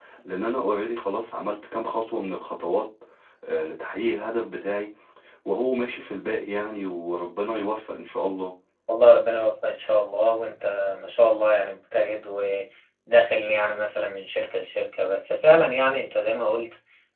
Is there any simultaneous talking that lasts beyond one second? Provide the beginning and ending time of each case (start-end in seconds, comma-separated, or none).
none